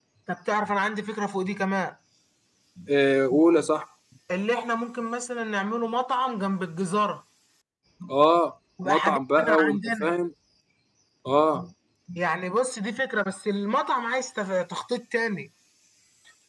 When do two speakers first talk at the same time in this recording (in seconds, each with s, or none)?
8.8 s